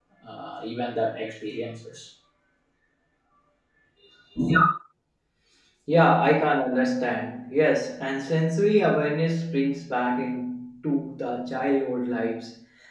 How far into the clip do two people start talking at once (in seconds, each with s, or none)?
none